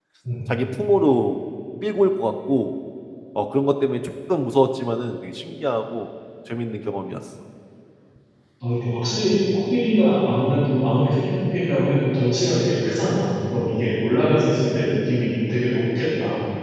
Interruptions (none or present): none